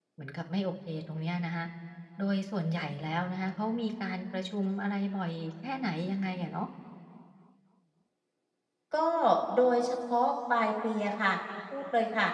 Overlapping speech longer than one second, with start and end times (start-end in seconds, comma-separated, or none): none